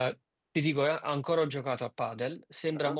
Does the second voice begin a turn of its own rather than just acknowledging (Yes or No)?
No